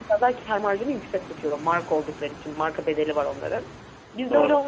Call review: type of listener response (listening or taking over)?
listening